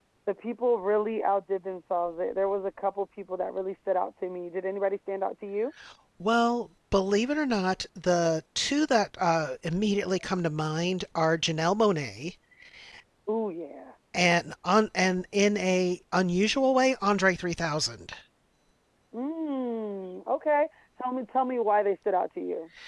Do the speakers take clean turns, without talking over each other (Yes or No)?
Yes